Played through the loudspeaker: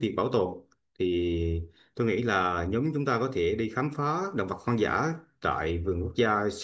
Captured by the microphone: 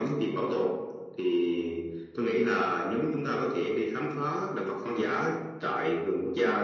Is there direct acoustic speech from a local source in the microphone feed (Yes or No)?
No